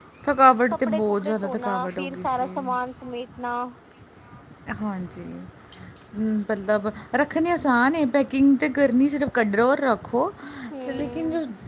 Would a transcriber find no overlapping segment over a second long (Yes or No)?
No